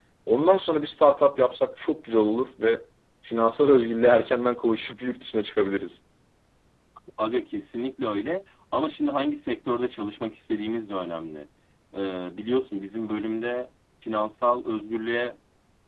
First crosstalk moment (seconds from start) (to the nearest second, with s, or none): none